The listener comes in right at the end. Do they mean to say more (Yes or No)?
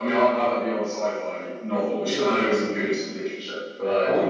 Yes